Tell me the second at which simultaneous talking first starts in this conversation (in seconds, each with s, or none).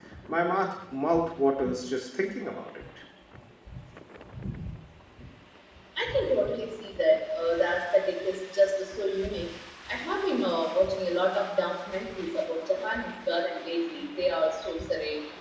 none